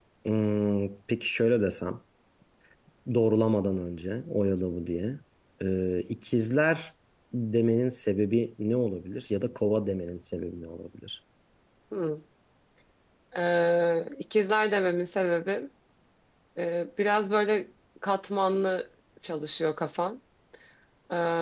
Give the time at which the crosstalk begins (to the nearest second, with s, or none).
none